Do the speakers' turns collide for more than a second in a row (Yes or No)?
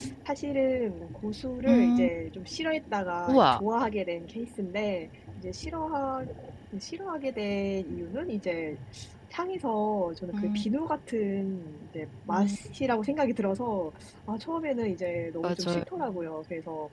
No